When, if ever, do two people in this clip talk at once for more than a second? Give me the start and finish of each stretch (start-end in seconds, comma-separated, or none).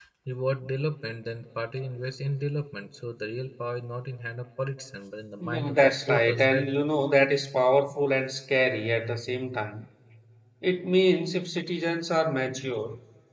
5.4-6.7